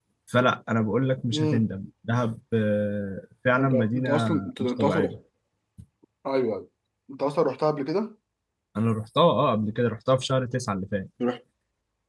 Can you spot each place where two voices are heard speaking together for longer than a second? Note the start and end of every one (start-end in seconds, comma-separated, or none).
3.5-5.1